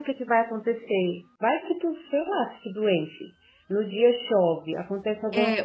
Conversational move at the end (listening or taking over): taking over